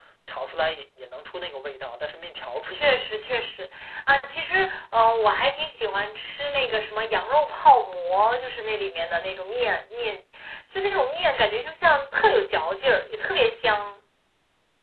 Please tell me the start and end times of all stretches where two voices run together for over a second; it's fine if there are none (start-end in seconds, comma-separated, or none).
none